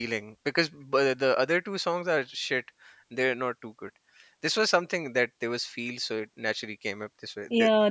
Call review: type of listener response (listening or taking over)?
taking over